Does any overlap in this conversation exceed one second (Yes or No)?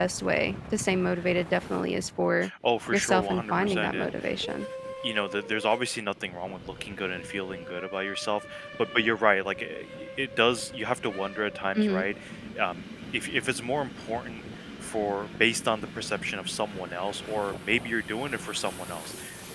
Yes